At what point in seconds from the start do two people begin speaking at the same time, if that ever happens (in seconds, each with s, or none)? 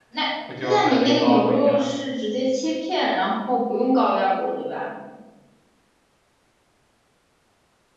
0.6 s